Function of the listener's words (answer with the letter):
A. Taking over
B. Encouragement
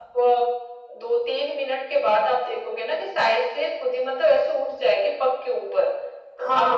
A